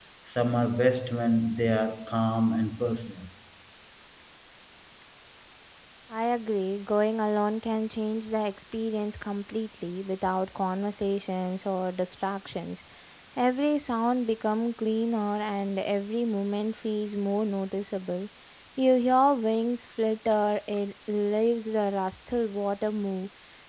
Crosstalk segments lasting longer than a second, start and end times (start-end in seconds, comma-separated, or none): none